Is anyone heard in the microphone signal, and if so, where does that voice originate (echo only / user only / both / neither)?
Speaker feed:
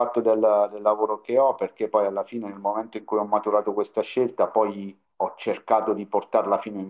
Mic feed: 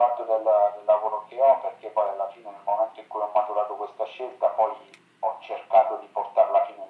echo only